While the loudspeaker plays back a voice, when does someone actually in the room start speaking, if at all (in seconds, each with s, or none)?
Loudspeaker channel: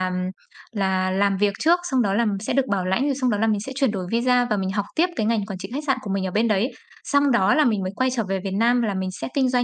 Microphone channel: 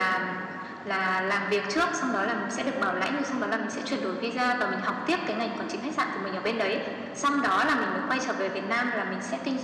none